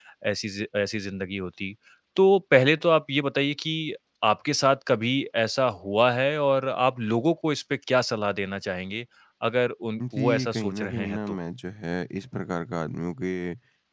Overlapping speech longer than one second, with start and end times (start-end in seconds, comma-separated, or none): 10.1-11.4